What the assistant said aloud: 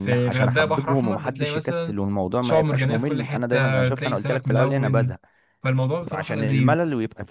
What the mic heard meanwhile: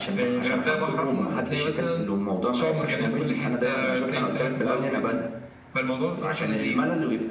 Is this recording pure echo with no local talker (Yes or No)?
Yes